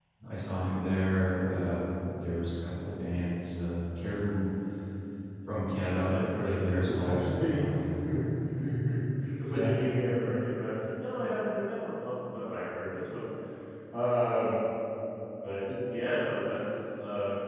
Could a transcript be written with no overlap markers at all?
No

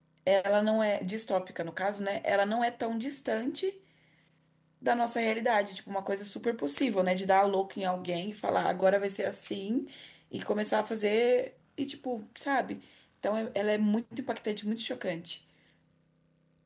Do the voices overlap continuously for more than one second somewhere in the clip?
No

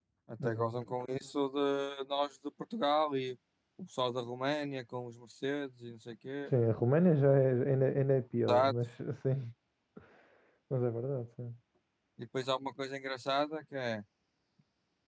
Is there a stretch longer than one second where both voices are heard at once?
No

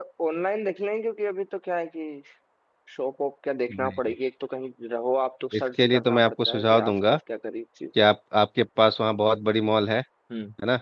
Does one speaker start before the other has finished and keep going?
Yes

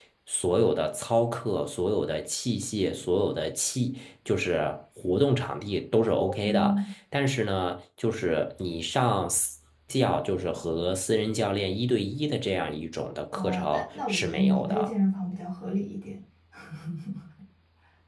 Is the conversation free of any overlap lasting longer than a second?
No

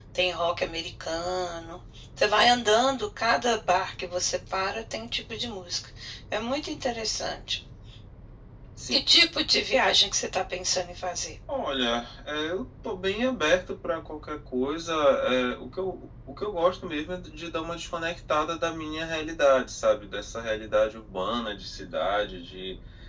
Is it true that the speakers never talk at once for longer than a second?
Yes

